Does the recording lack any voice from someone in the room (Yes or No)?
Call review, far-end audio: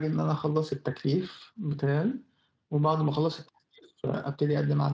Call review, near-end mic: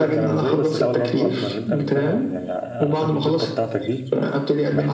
No